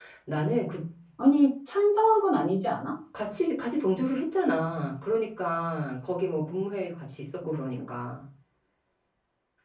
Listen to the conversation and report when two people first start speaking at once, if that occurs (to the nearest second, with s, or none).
none